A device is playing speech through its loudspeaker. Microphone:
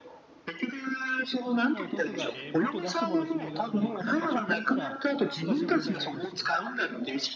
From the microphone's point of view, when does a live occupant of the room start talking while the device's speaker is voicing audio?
1.5 s

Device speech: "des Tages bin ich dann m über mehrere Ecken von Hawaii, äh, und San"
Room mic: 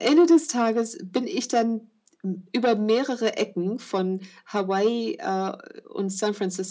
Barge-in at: none

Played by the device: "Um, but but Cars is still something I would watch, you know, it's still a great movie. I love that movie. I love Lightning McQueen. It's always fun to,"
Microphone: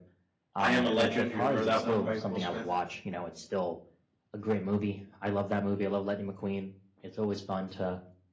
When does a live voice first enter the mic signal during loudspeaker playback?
0.6 s

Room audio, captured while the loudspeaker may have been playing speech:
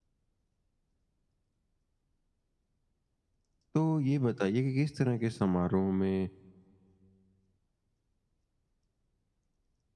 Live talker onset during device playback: 3.8 s

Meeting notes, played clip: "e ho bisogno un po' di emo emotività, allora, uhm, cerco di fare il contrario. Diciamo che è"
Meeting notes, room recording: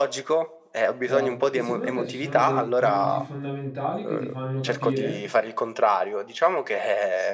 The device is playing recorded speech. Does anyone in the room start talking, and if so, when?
1.0 s

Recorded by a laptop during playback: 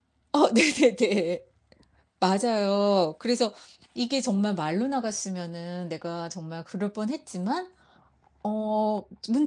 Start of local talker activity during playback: 0.3 s

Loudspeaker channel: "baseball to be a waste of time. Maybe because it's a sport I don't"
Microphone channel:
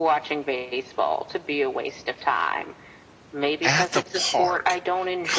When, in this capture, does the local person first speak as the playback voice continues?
3.6 s

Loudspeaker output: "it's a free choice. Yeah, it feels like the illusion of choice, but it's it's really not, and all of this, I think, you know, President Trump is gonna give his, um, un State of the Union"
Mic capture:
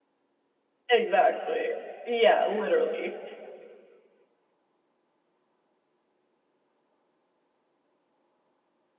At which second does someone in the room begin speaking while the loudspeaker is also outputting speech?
0.9 s

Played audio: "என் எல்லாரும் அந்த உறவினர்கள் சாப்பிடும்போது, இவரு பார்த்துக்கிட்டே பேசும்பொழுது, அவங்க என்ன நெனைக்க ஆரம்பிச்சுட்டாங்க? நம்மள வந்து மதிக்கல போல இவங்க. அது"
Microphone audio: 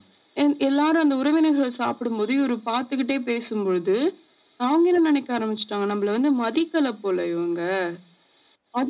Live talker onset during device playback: none

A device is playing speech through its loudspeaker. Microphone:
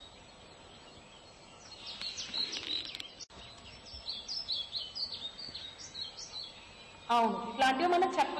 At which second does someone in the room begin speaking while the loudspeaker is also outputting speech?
7.2 s

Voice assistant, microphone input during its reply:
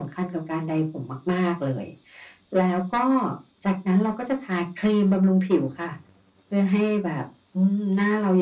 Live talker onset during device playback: none

